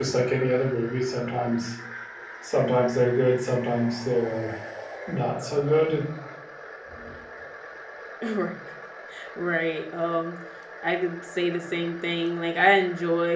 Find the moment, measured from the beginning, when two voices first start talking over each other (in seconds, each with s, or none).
none